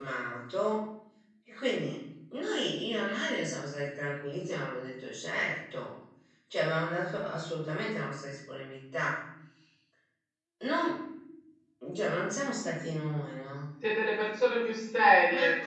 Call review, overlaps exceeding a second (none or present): none